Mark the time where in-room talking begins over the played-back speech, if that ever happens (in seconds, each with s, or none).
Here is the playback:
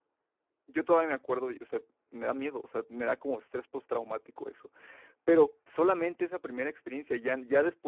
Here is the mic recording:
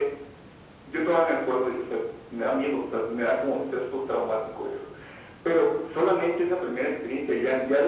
none